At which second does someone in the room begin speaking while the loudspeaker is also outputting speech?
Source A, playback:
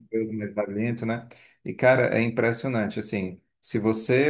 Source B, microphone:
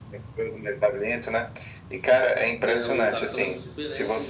2.6 s

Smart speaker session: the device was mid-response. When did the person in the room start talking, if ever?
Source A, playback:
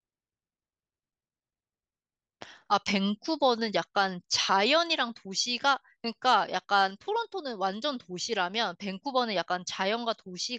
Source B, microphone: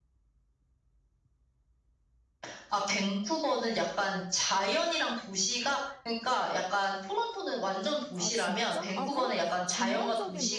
8.2 s

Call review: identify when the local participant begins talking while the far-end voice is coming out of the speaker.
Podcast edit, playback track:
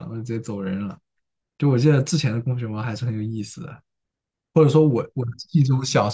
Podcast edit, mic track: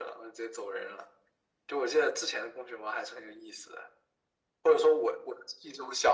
none

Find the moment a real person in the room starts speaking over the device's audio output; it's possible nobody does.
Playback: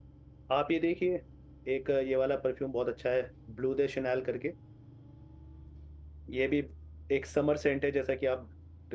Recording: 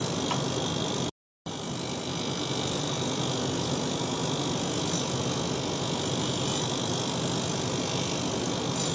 none

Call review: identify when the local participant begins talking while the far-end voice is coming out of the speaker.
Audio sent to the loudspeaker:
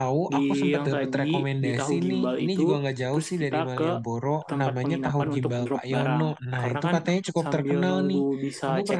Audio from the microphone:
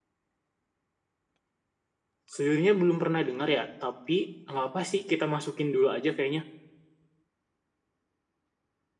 2.3 s

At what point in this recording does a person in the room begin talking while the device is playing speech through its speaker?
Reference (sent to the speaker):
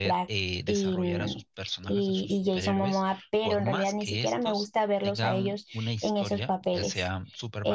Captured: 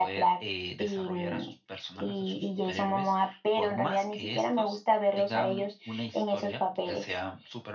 none

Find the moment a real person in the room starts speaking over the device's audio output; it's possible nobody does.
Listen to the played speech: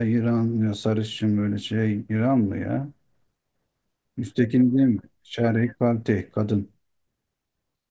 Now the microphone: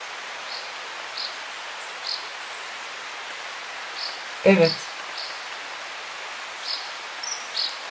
4.4 s

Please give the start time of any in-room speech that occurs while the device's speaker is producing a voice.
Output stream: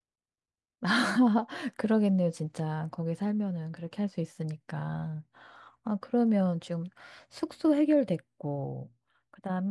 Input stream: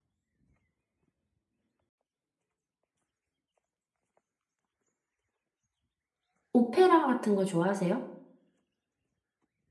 6.5 s

